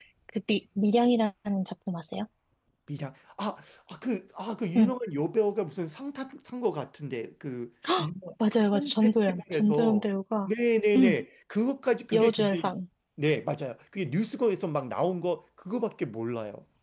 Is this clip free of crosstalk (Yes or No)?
No